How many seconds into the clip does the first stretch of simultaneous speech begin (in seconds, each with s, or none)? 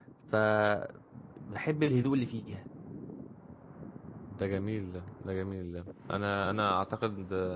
none